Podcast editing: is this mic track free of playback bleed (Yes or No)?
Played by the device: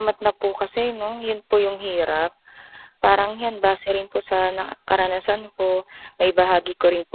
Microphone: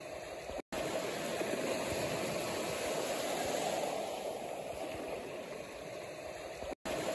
Yes